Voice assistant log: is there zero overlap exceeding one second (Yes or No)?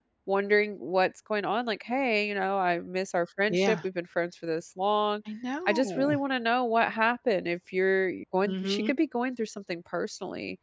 Yes